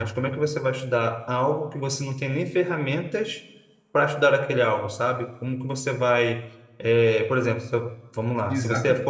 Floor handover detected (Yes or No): Yes